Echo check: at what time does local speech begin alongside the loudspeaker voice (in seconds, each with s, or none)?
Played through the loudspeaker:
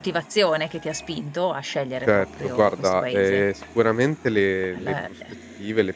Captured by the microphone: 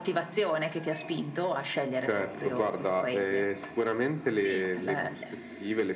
4.3 s